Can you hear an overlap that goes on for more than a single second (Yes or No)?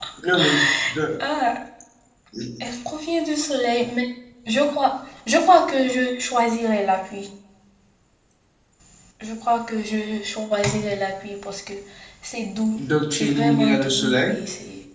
Yes